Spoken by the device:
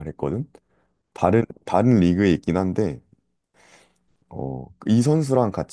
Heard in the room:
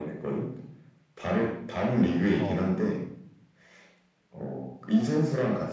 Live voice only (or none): 어,